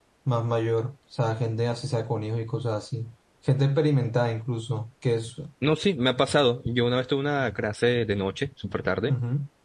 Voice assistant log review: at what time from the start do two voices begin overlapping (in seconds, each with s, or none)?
none